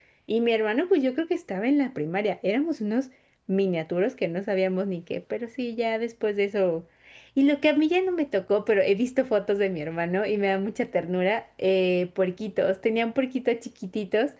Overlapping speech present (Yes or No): No